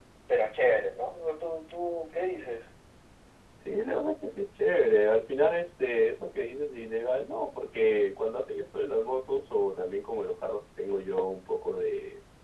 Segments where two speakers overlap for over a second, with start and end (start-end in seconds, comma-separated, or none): none